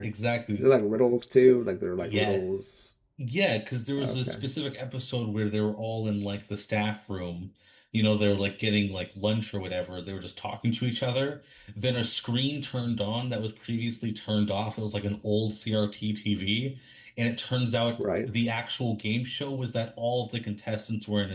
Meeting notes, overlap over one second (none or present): none